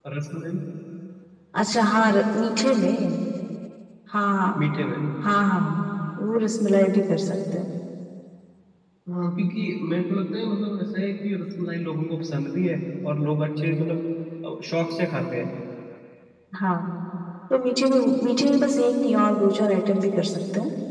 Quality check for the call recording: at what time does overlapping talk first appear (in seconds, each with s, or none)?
none